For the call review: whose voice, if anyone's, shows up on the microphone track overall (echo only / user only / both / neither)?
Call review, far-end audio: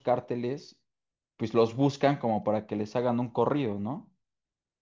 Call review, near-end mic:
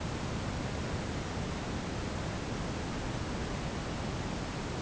neither